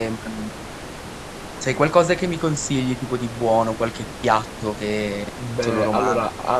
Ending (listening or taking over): taking over